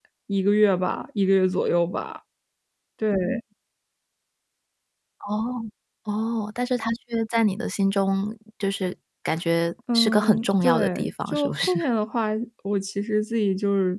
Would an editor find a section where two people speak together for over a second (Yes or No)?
Yes